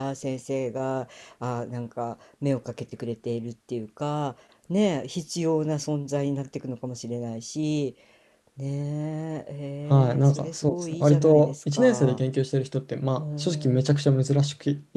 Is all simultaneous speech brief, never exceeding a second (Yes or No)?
No